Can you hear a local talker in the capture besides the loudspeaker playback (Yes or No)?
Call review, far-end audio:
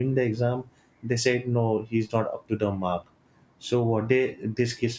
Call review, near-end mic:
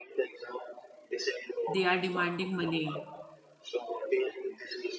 Yes